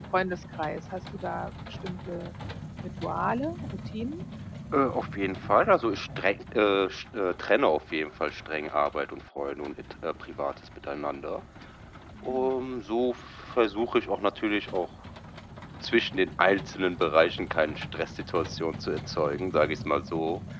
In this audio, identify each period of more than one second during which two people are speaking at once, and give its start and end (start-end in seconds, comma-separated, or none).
none